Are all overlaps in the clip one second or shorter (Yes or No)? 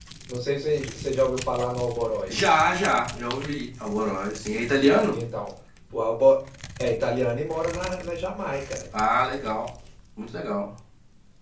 Yes